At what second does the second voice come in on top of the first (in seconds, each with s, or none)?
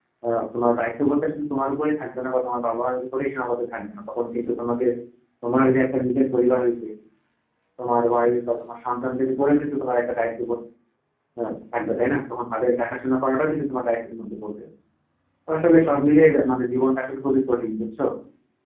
none